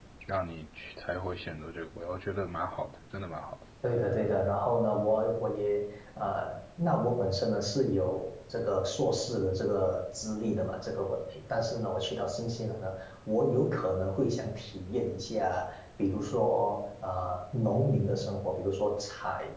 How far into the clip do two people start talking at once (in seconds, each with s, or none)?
none